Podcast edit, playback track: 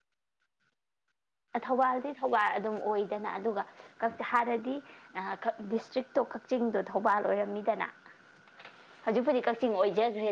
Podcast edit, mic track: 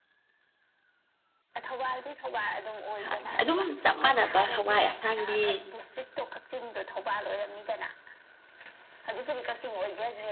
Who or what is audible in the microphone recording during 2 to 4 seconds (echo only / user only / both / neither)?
both